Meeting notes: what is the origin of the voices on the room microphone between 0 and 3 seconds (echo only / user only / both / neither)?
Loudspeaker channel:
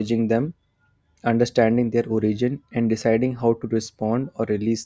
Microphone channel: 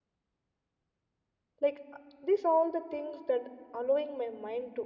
user only